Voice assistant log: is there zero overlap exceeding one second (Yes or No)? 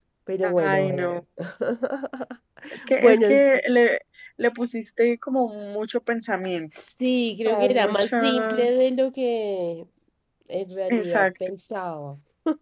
No